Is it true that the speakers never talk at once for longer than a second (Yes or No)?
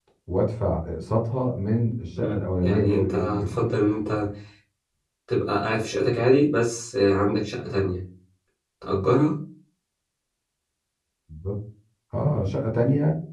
No